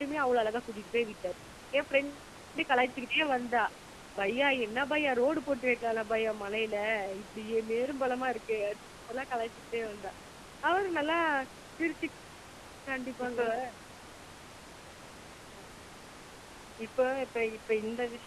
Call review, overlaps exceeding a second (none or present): none